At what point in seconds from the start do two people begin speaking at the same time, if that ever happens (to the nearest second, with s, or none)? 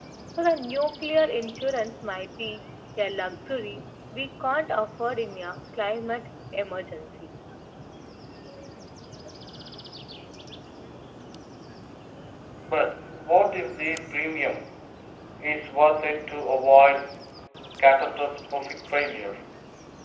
none